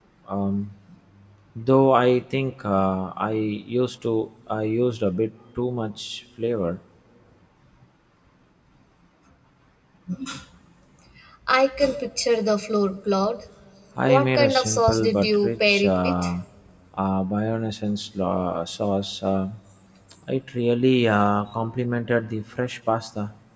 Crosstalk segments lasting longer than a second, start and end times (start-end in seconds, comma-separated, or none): 14.1-16.1